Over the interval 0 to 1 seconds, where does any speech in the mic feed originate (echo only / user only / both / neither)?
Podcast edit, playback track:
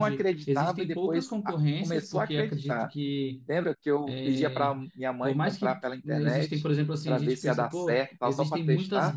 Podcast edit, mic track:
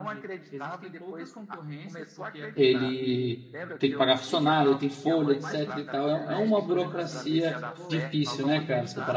echo only